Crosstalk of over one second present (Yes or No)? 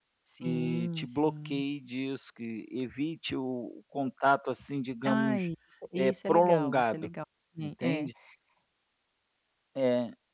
Yes